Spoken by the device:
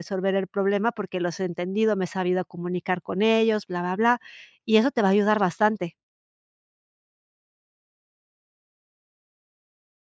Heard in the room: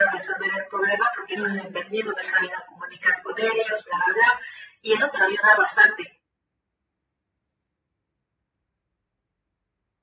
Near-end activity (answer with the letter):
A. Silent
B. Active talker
B